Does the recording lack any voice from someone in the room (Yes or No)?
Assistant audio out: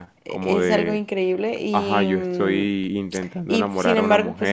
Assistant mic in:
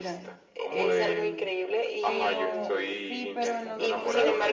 No